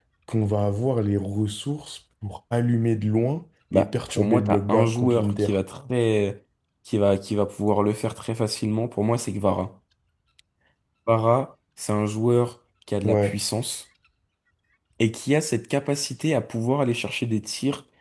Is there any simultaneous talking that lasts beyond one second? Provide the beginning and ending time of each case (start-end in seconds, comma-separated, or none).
3.7-5.5